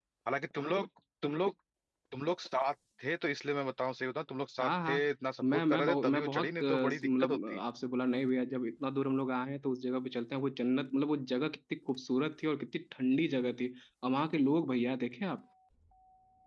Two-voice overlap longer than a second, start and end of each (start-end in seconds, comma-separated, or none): 5.4-7.6